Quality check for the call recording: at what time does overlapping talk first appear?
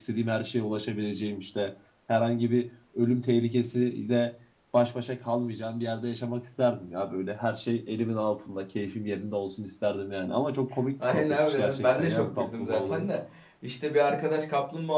11 s

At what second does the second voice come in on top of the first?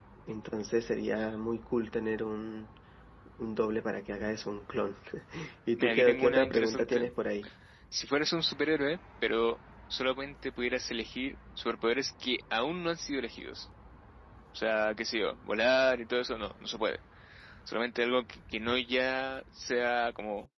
6 s

